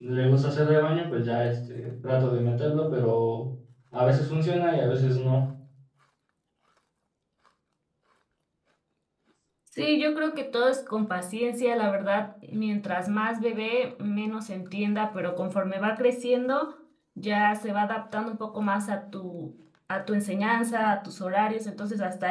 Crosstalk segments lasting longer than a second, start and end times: none

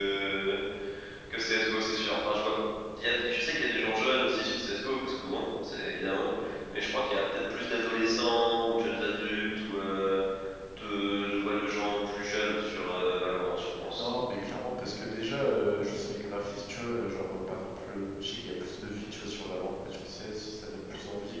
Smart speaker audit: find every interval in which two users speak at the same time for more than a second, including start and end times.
none

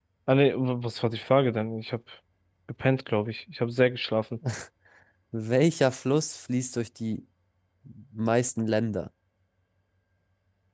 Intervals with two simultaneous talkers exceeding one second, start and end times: none

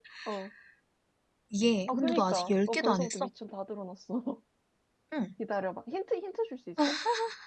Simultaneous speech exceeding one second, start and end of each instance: 1.9-3.3

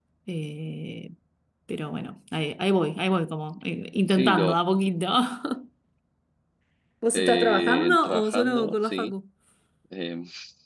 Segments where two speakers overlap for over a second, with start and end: 7.1-9.1

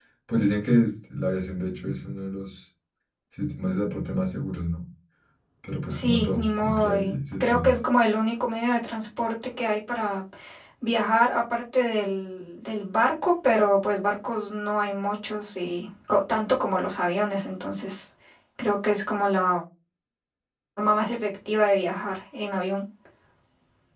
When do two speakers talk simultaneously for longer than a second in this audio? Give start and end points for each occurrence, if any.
5.9-7.8

